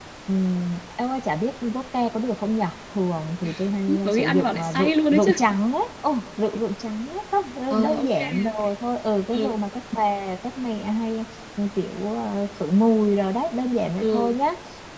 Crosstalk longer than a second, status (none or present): present